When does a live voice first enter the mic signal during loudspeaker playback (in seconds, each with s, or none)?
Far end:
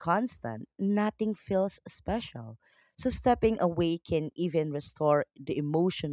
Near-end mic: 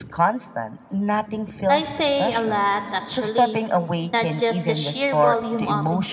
1.7 s